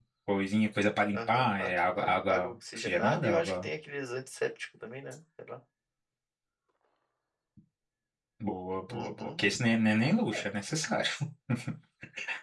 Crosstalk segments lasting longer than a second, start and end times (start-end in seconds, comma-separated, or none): 1.1-3.7